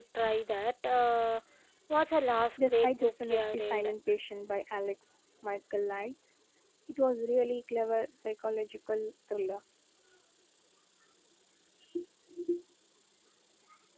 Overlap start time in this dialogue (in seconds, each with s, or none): 2.7 s